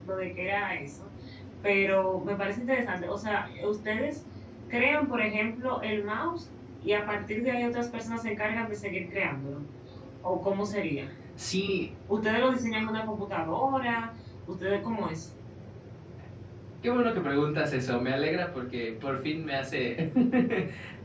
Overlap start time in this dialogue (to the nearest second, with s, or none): none